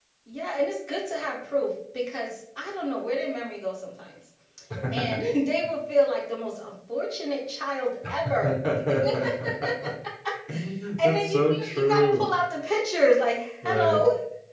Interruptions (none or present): present